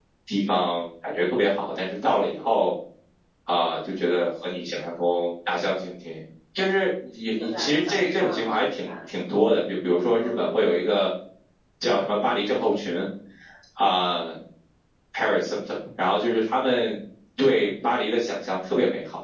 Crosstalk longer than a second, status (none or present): present